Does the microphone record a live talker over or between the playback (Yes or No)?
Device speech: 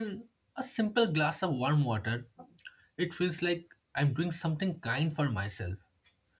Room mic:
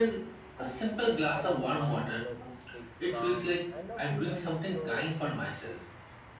Yes